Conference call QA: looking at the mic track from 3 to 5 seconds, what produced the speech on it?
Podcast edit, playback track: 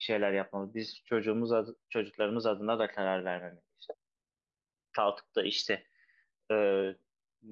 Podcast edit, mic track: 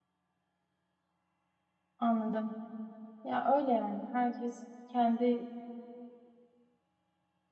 user only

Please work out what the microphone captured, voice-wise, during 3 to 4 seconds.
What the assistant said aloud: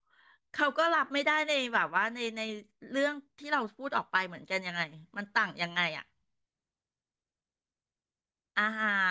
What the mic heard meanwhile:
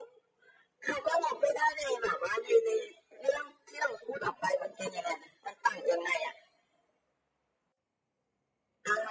echo only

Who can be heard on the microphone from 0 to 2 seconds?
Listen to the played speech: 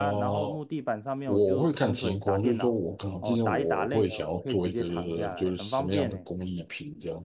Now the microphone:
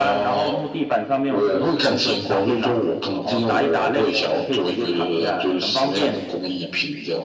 echo only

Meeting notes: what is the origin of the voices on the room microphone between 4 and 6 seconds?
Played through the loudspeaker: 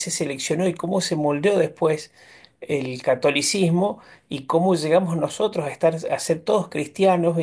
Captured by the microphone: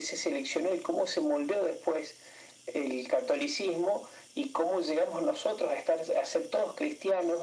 echo only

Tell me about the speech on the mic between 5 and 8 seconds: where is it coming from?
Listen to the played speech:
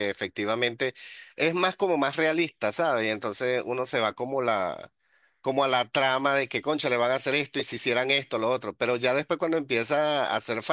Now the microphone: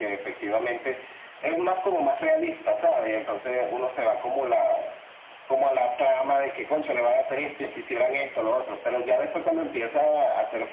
echo only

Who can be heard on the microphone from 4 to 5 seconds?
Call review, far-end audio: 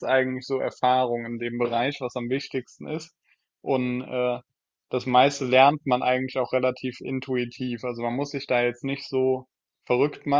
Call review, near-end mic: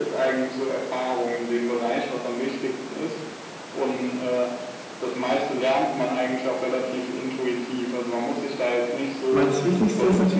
echo only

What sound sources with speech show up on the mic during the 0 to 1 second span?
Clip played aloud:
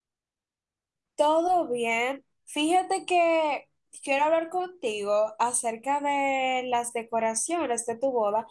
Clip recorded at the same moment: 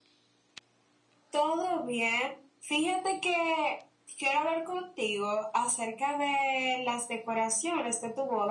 neither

